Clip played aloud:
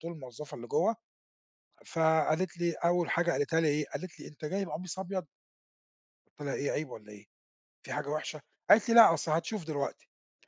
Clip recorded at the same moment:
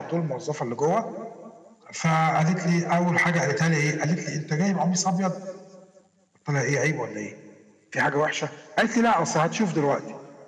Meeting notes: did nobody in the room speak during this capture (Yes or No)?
Yes